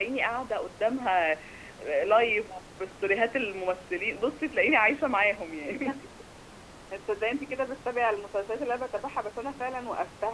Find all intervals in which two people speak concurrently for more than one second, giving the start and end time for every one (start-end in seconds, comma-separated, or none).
none